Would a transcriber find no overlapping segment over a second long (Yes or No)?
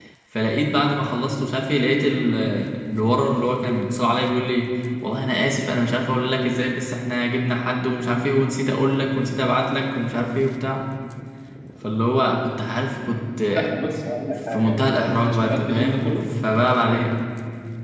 No